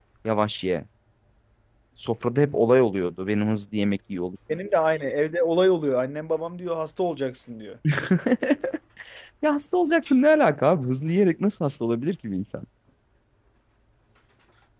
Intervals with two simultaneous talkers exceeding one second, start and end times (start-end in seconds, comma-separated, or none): none